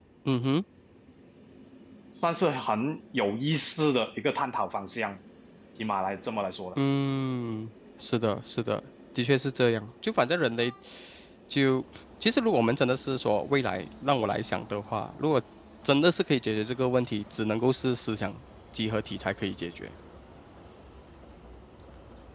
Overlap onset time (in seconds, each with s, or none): none